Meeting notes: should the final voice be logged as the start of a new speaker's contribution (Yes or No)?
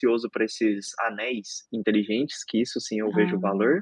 No